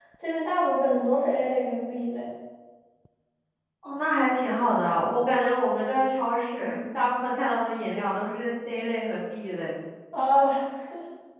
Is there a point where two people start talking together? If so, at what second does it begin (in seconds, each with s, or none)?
none